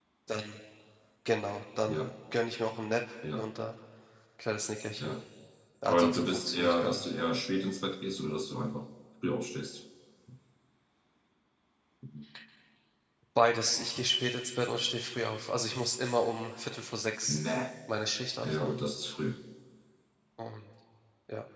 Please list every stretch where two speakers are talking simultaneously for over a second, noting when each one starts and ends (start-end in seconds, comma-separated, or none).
5.9-7.1